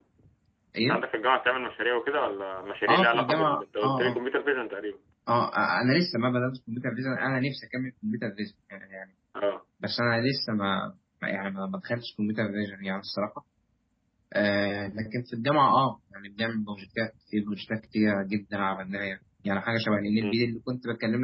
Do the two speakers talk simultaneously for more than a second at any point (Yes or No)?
Yes